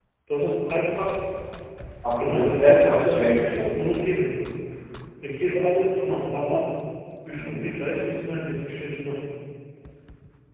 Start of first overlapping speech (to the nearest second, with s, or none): 2 s